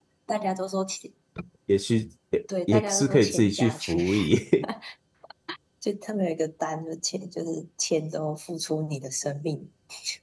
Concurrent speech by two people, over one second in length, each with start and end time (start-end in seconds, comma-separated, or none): 2.7-4.0